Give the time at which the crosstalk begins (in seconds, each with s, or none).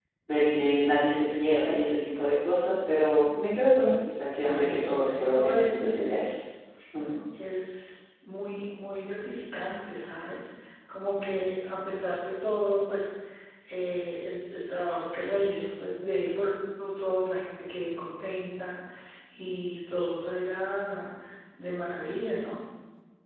4.4 s